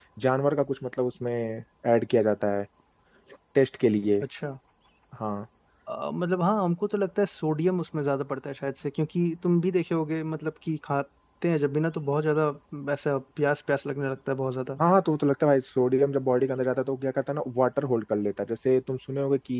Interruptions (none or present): none